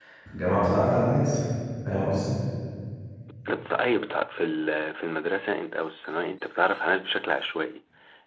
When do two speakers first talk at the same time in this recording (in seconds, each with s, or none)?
none